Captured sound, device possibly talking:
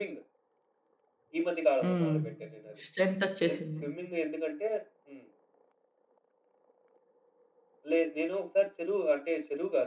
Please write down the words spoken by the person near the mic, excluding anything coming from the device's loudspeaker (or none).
హ్మ్. స్ట్రెంత్ ఒచ్చేసింది.